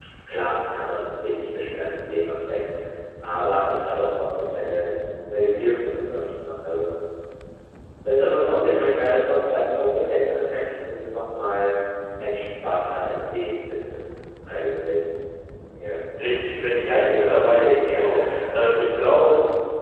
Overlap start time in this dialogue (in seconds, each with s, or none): 17.1 s